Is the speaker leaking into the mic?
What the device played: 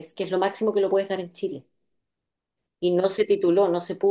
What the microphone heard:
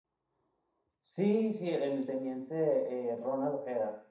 No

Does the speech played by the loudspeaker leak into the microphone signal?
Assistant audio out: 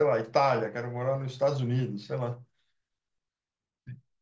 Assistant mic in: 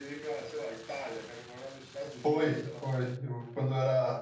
Yes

